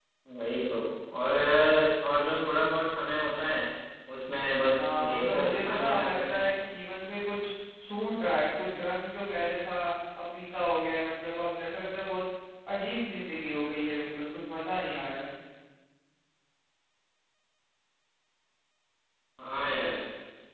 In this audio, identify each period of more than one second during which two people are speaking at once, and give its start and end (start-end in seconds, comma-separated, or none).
4.8-6.3